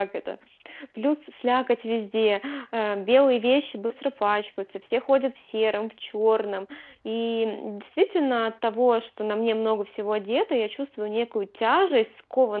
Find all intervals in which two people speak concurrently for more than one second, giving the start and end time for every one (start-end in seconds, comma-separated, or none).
none